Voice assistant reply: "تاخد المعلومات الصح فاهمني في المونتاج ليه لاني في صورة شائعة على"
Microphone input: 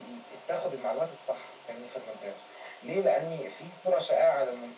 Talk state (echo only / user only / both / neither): echo only